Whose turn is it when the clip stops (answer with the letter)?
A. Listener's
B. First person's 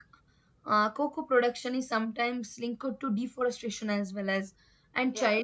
B